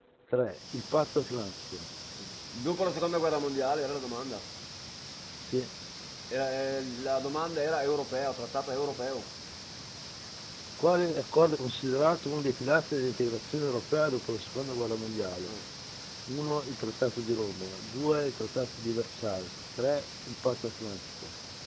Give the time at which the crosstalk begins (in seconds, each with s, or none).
none